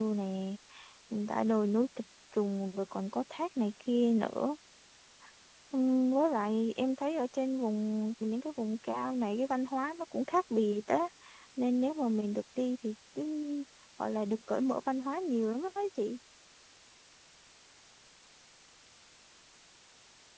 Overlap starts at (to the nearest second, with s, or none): none